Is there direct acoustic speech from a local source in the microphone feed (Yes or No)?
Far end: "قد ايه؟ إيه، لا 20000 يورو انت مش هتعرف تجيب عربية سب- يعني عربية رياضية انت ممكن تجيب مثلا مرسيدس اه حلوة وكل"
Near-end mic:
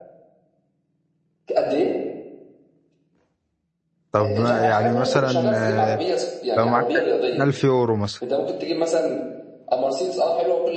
Yes